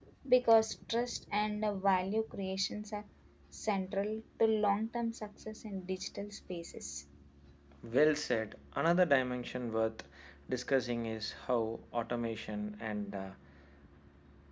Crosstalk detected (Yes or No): No